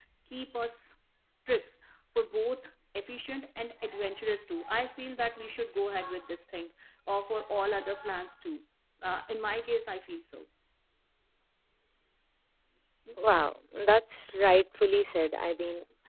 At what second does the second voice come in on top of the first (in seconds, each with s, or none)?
none